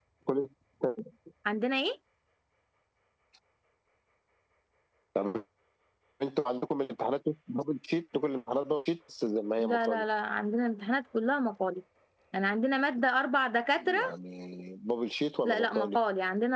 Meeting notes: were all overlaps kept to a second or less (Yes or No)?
Yes